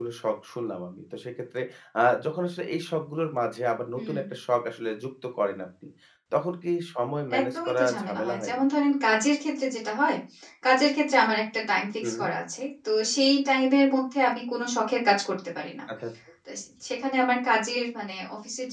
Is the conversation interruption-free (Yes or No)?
No